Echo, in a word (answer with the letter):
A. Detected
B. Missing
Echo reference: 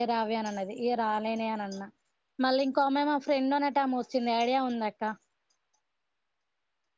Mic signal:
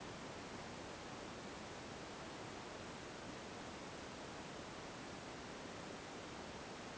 B